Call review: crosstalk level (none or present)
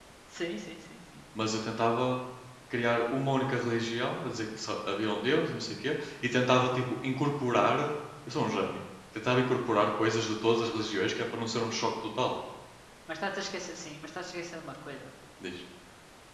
none